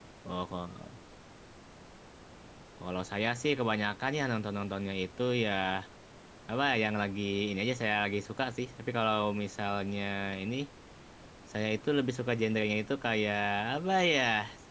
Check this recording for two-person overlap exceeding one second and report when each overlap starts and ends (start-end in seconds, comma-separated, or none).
none